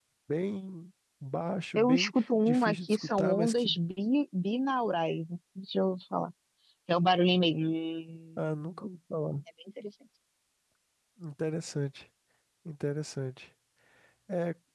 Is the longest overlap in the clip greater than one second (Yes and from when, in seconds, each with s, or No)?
Yes, from 1.8 s